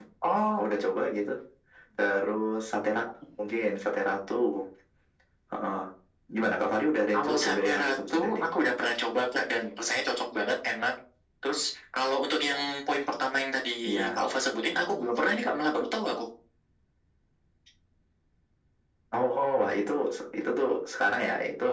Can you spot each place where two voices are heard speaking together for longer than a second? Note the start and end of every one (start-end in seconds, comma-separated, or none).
7.1-8.4